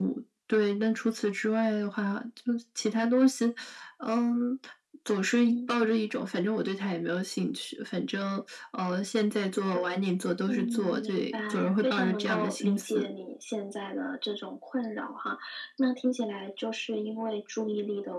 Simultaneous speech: Yes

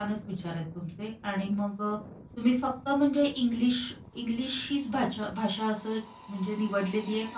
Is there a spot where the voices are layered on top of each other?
No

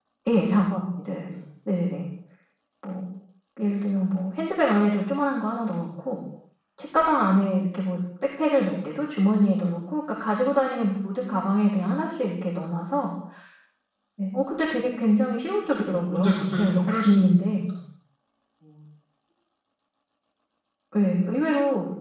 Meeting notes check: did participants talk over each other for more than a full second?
Yes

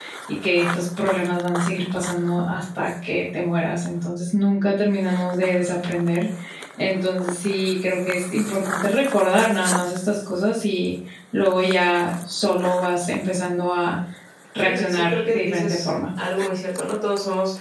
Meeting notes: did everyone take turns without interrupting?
No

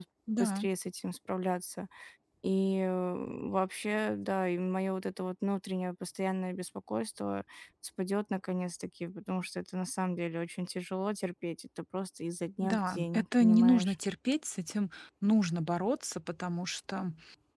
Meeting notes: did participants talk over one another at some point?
Yes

